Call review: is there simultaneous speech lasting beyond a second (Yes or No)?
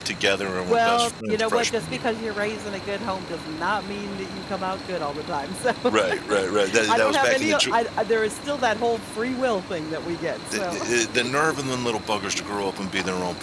Yes